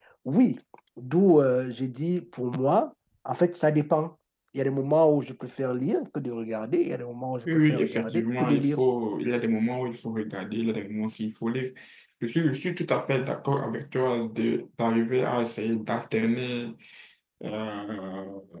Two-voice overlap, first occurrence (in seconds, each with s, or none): 7.4 s